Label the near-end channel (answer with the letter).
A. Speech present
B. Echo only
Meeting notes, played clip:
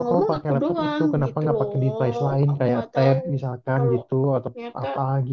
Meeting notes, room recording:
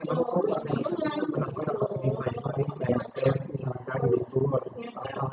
A